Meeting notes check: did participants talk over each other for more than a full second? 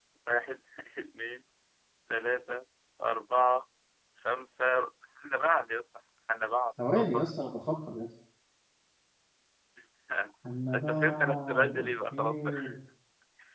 Yes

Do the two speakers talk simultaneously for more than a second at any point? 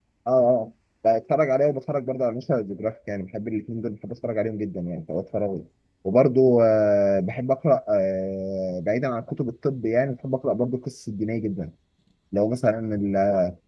No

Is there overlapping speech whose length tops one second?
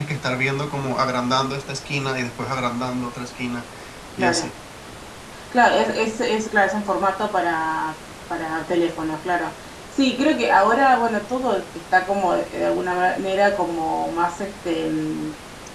No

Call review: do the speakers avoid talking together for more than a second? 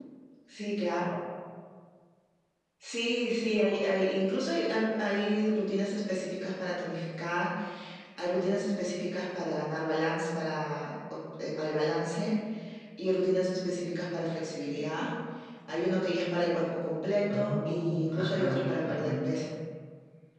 No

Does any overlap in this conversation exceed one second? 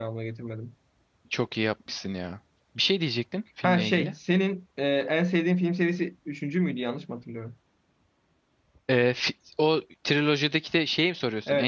No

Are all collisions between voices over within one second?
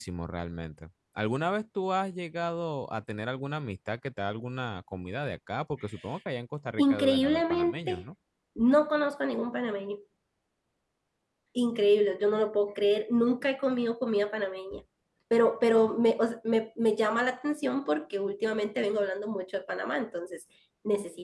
No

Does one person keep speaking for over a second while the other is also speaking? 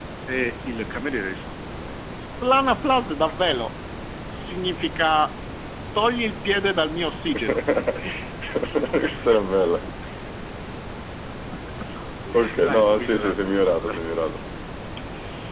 Yes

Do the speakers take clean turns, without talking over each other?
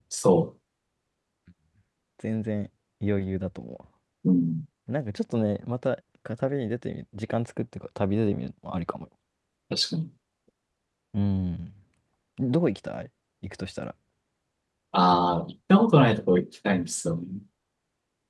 Yes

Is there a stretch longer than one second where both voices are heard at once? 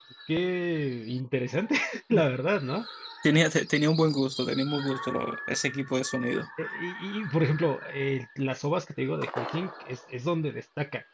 No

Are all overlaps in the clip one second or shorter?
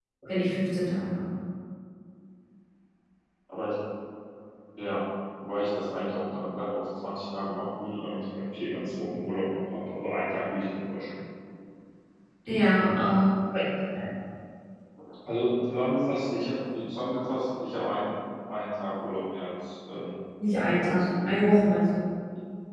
Yes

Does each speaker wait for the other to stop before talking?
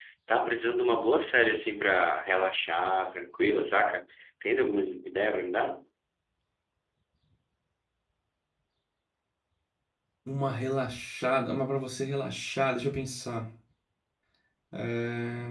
Yes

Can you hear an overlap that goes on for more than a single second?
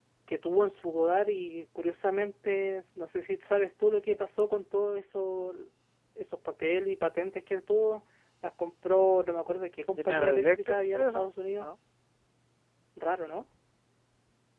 Yes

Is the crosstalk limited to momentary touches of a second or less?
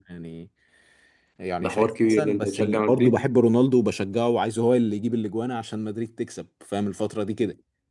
No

